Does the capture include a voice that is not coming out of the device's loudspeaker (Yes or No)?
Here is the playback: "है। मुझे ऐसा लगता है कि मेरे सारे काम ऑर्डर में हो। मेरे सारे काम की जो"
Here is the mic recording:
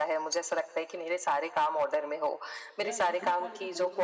Yes